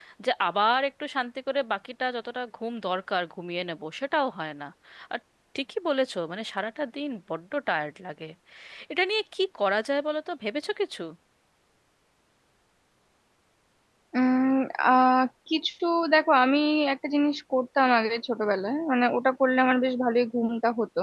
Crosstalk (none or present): none